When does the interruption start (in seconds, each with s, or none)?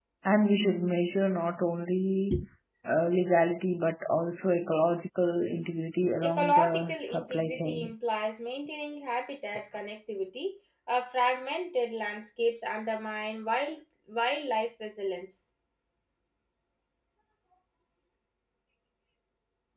6.2 s